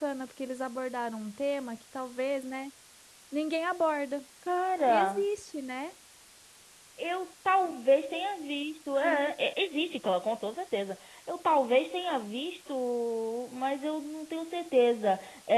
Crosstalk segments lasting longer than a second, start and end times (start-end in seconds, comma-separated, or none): none